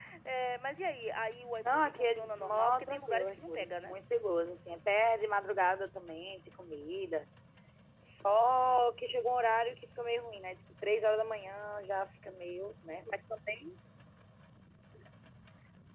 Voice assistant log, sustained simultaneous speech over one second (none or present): present